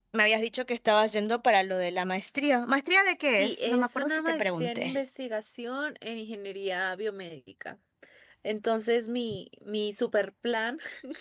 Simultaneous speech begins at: 3.4 s

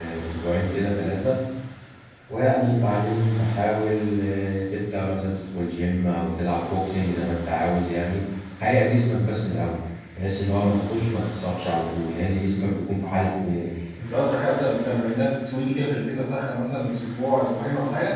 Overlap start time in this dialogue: none

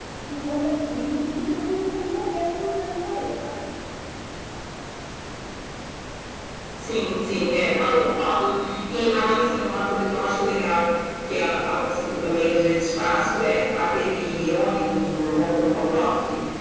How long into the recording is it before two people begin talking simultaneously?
none

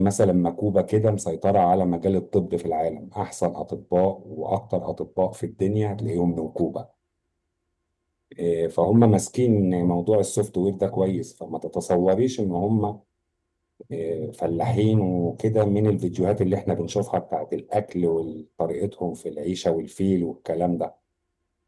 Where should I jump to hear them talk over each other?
none

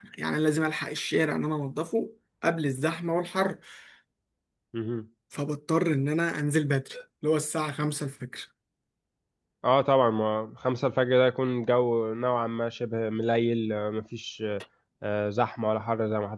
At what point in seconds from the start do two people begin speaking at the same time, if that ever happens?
none

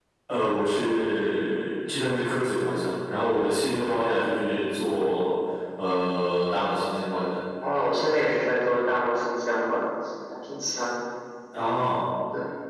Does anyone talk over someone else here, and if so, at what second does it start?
none

